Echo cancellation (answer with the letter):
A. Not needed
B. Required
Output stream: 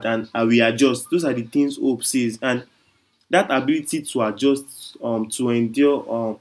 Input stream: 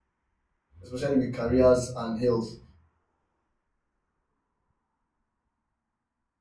A